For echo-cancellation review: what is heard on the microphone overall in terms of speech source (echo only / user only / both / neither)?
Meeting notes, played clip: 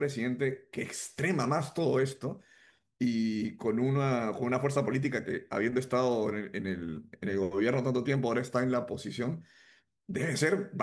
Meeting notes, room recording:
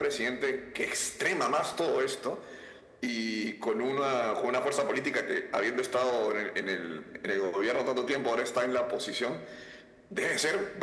echo only